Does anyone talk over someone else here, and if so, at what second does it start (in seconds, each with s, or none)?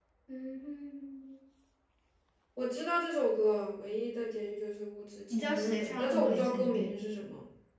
5.3 s